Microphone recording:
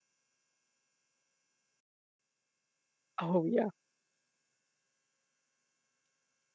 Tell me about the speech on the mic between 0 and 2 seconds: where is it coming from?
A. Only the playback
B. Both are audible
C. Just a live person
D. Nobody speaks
D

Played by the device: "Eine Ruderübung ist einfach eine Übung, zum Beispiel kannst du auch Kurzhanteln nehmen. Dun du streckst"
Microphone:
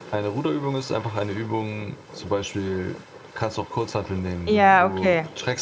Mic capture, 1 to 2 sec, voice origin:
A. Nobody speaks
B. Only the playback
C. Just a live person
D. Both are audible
B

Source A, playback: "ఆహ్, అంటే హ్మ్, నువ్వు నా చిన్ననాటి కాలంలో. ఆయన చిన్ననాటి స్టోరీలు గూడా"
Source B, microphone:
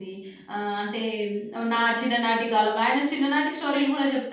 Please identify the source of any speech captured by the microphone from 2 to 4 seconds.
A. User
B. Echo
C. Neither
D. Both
B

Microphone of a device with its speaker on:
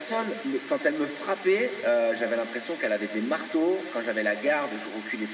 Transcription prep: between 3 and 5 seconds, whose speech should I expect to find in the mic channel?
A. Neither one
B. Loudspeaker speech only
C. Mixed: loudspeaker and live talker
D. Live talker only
B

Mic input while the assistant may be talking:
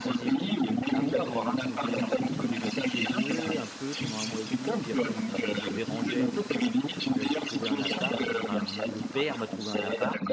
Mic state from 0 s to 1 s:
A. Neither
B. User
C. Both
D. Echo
C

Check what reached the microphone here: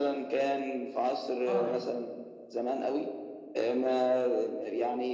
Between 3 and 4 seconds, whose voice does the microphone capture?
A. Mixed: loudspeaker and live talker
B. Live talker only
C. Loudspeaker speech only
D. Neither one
C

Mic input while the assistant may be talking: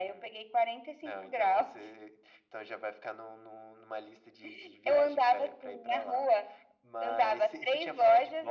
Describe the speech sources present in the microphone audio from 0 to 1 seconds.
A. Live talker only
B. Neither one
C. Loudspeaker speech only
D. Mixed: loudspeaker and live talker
C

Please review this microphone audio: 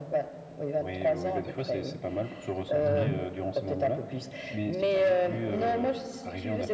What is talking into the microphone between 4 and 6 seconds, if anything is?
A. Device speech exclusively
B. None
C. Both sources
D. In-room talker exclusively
A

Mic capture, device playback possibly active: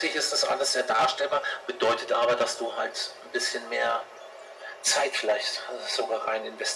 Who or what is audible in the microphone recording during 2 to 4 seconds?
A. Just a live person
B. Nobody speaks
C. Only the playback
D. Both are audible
C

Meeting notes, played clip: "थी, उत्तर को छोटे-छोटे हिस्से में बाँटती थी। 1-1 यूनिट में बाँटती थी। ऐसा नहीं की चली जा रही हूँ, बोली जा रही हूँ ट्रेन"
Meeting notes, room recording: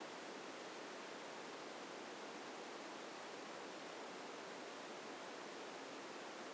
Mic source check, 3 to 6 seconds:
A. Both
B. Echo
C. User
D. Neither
D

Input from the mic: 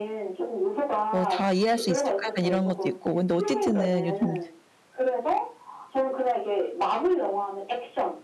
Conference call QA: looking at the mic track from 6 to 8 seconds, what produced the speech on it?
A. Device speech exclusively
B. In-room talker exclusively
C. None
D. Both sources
A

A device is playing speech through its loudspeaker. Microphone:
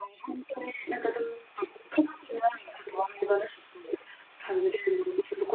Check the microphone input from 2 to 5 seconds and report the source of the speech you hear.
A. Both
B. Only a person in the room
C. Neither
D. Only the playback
D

